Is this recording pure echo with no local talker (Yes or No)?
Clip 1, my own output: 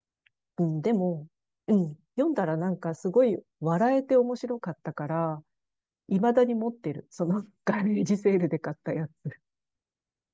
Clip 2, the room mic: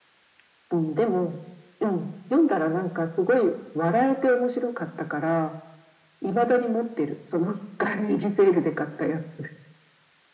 Yes